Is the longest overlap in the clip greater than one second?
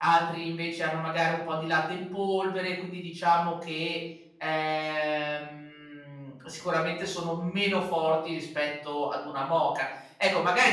No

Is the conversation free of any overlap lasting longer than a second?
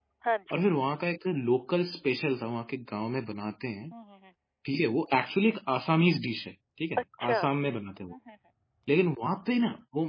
Yes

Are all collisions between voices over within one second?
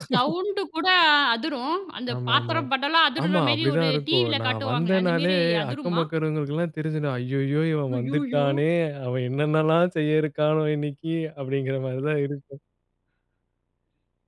No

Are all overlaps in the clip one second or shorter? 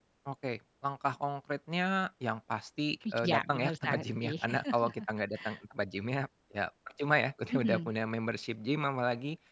No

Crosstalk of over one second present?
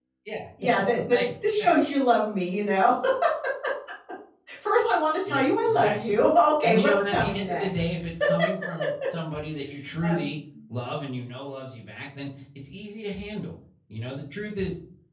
Yes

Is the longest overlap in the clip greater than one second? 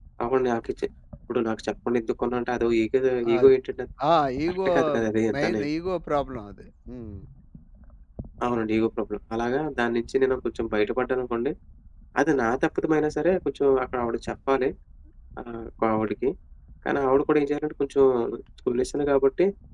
No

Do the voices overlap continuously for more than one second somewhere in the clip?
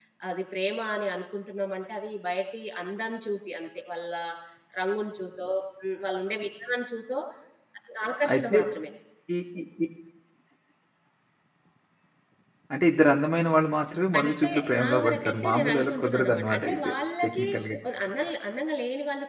Yes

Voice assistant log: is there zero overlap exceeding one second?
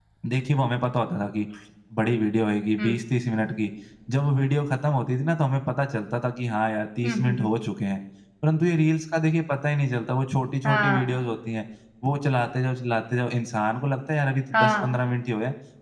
Yes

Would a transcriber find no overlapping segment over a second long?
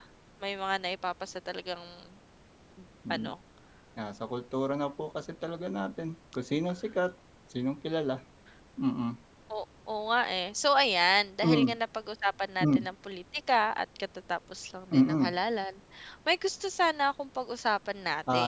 Yes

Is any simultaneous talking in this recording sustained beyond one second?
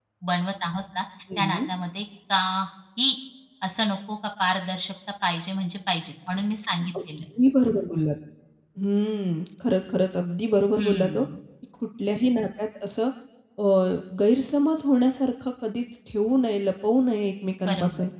No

